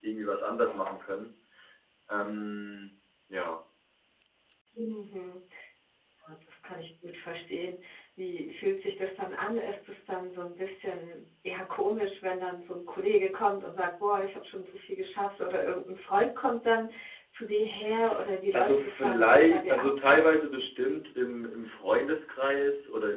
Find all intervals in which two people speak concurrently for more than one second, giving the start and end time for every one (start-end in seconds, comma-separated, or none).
18.5-19.9